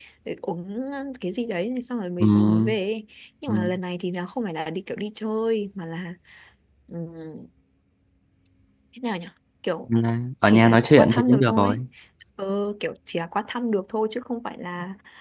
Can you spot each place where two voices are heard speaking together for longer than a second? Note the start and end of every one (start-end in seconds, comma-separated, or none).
10.4-11.8